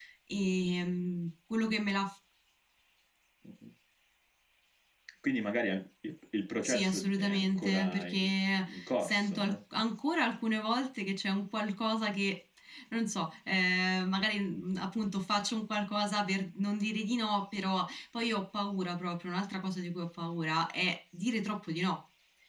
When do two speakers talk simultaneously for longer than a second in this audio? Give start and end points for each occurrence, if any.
6.6-9.6

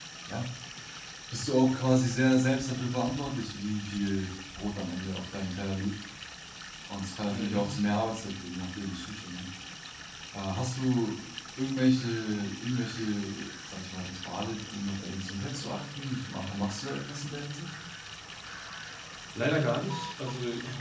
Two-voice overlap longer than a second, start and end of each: none

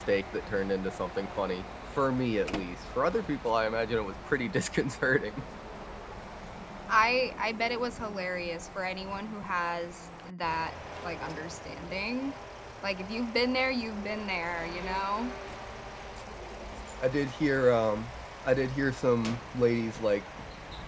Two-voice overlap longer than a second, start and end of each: none

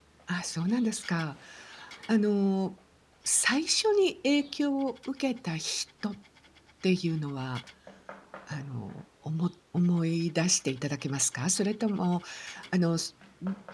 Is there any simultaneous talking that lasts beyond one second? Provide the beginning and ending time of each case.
none

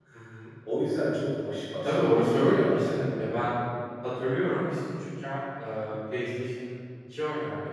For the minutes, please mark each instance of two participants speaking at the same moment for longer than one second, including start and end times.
1.8-3.4

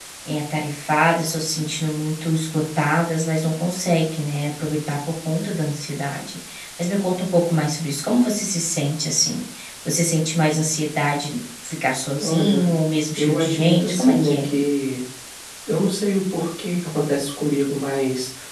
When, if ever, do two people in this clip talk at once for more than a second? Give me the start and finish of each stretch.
13.2-14.5

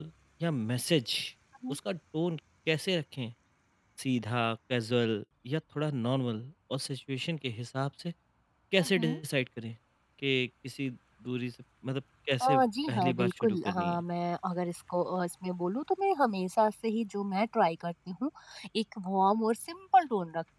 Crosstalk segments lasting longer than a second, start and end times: 12.4-14.0

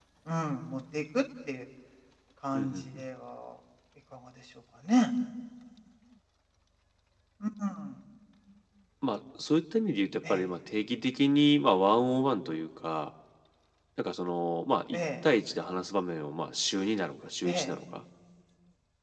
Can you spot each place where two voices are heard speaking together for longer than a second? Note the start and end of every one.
none

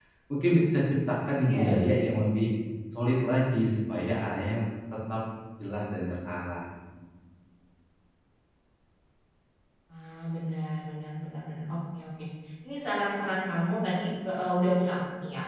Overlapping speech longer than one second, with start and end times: none

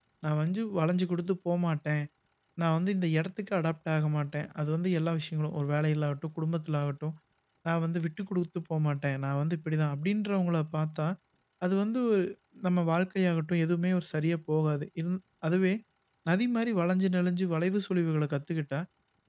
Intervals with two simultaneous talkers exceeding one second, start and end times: none

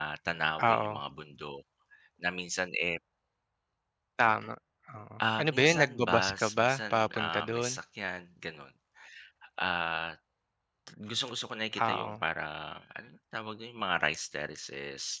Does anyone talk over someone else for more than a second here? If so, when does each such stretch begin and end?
5.4-7.7

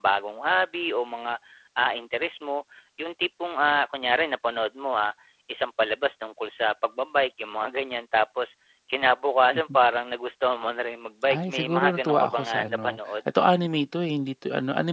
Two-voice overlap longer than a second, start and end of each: 11.3-13.0

